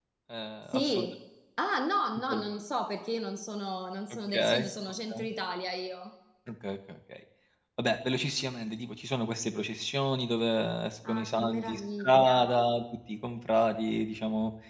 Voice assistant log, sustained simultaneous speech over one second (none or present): present